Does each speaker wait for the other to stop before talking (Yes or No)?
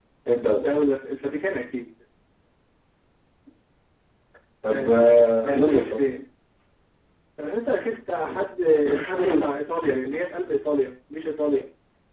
No